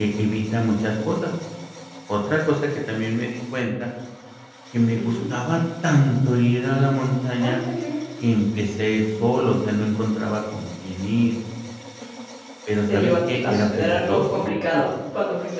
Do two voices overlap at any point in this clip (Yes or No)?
Yes